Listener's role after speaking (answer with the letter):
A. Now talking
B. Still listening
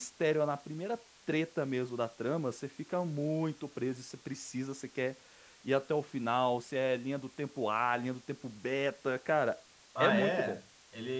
A